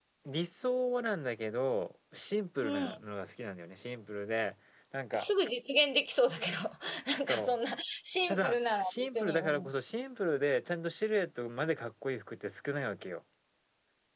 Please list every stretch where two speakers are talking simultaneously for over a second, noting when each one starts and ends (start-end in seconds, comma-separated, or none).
8.3-9.7